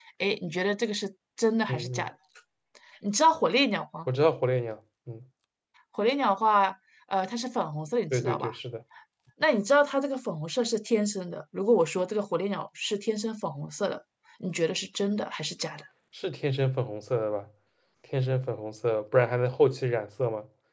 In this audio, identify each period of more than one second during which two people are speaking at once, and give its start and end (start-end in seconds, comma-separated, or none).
none